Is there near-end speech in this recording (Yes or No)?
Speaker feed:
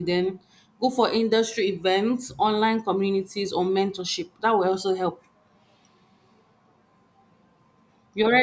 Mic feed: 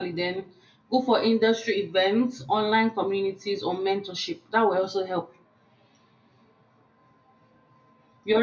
No